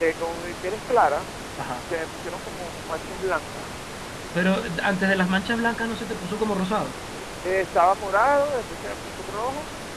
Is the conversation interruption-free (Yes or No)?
Yes